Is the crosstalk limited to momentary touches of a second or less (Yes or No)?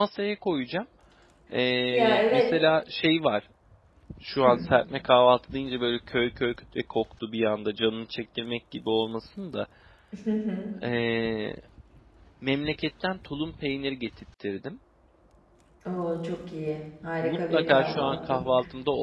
No